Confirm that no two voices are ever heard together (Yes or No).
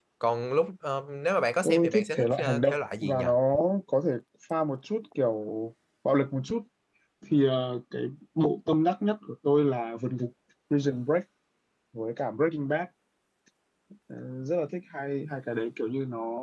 No